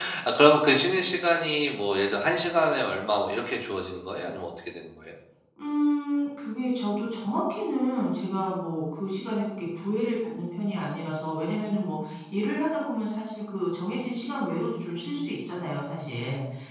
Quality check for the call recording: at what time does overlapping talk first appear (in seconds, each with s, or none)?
none